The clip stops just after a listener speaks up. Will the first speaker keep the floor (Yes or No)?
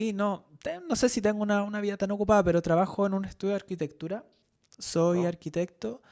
Yes